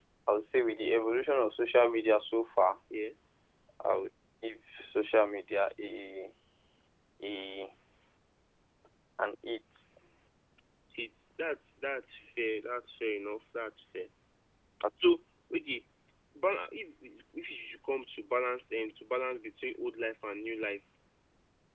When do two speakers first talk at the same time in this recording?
none

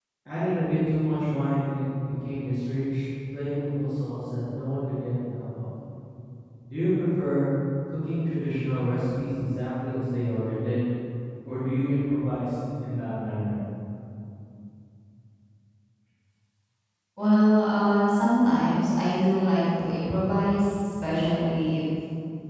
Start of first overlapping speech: none

